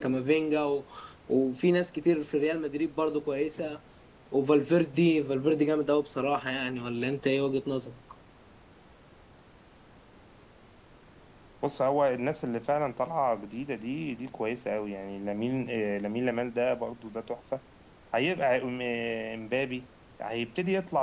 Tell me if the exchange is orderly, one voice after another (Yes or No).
Yes